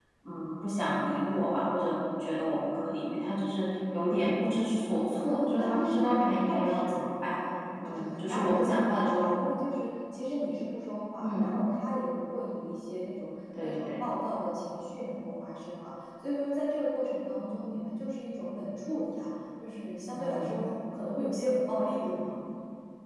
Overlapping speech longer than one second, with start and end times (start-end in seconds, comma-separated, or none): 5.2-7.0, 7.9-9.3